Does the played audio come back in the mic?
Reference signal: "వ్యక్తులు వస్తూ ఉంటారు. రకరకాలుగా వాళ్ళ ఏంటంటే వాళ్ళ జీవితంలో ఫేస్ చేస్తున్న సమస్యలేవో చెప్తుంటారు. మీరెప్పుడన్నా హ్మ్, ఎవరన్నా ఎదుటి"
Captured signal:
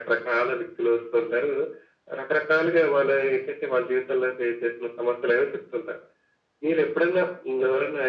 Yes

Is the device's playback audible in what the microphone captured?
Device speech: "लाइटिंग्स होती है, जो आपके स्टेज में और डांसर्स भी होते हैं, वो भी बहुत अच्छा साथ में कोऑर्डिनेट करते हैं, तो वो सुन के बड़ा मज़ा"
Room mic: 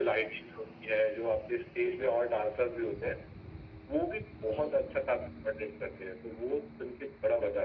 Yes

